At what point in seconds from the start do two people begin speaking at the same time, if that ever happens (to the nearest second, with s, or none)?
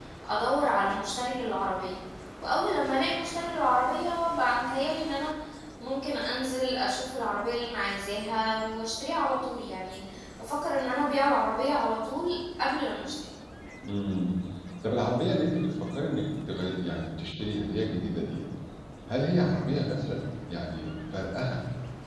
none